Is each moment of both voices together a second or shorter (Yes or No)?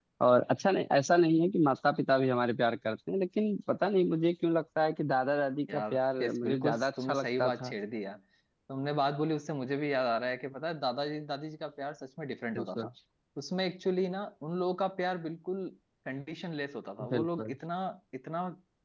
No